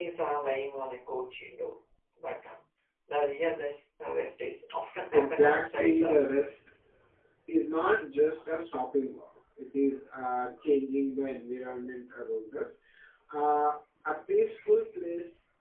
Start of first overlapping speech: 5.1 s

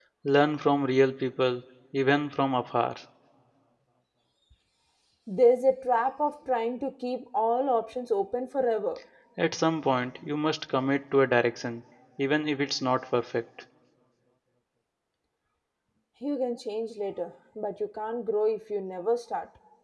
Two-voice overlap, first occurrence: none

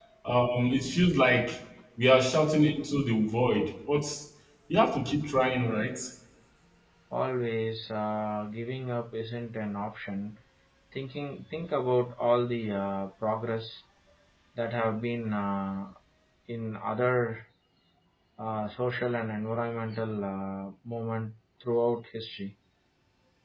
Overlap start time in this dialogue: none

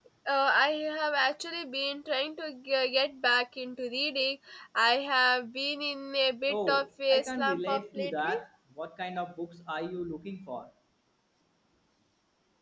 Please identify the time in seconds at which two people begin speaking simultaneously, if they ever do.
6.5 s

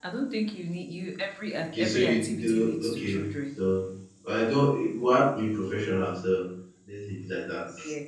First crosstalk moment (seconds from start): 1.7 s

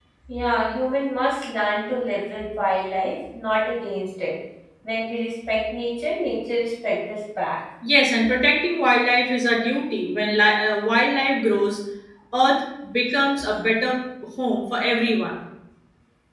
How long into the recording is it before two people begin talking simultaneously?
none

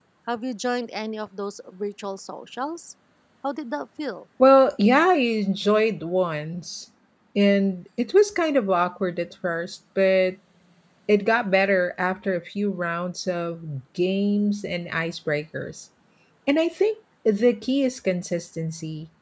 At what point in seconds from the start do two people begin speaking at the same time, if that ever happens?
none

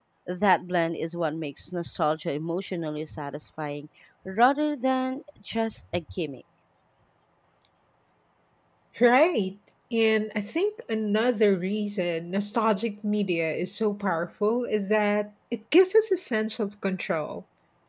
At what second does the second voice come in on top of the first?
none

